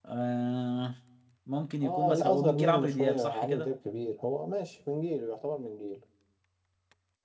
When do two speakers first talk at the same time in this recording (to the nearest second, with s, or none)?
2 s